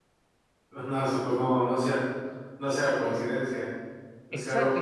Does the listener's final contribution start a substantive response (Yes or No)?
Yes